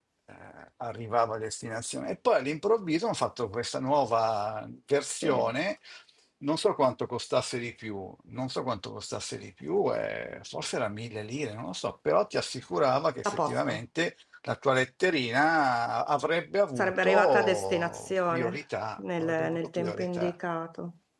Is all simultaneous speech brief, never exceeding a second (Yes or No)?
No